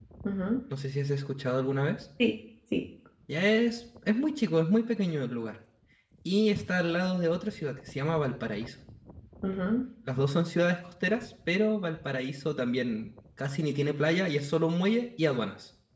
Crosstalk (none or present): none